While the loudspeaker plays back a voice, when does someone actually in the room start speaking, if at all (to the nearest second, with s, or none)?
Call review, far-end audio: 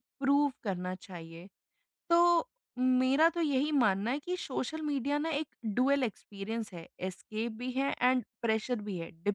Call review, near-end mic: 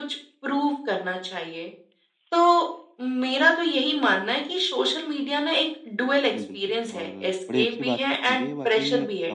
6 s